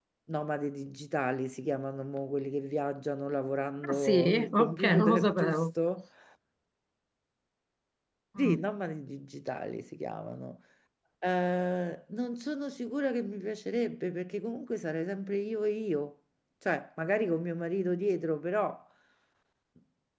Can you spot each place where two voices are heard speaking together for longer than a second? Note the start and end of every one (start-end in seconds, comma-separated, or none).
3.9-5.6